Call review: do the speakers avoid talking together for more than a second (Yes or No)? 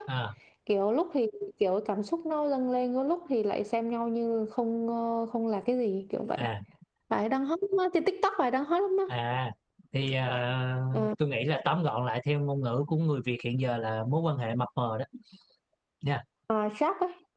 Yes